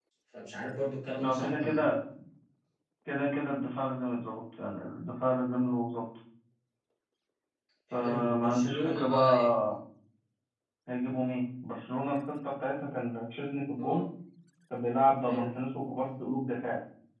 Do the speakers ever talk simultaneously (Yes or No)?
Yes